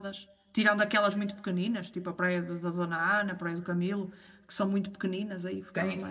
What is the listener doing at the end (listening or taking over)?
taking over